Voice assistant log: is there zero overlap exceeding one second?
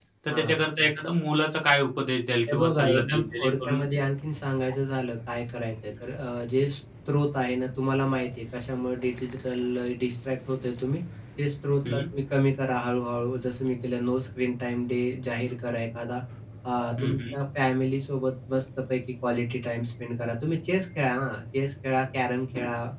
No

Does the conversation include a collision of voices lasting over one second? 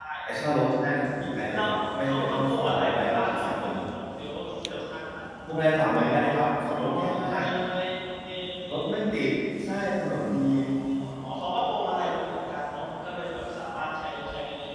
Yes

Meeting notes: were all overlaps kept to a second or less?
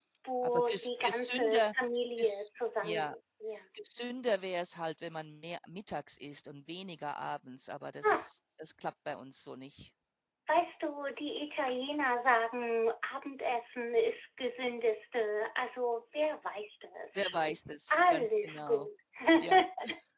No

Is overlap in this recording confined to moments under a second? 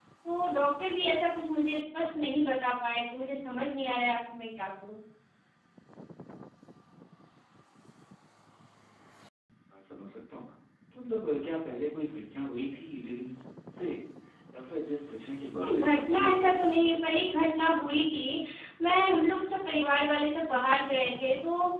No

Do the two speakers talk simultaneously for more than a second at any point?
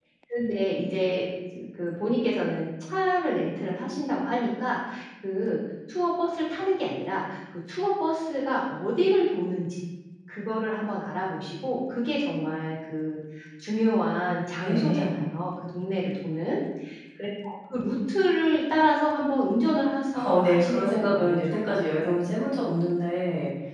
Yes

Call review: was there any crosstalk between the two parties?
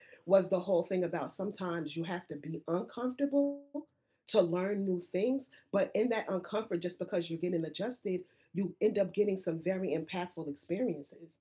No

